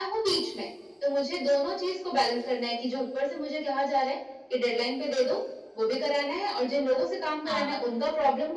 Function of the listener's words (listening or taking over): listening